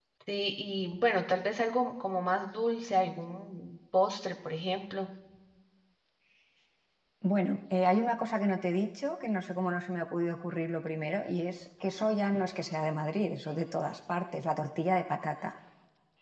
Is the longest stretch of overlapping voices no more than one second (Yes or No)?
Yes